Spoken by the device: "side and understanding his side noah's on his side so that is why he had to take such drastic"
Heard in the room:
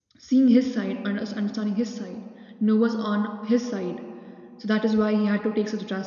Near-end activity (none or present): none